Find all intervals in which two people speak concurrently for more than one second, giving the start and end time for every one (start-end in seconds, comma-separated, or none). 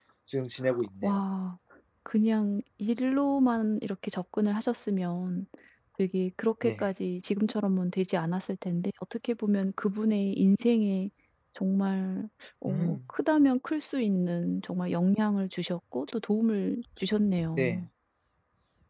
none